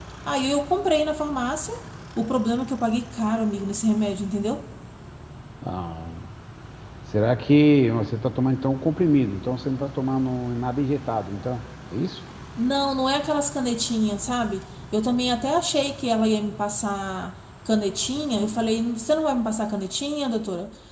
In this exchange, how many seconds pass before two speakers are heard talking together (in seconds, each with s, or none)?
none